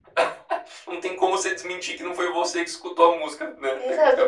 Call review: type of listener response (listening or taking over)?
taking over